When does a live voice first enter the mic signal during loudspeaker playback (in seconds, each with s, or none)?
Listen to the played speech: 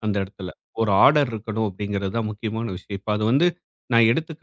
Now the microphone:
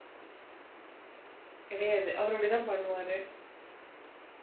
1.7 s